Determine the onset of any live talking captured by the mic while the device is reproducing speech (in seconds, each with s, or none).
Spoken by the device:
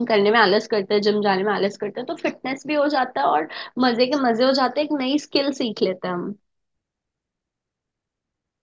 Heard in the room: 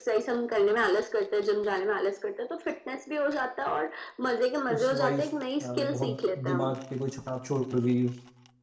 4.8 s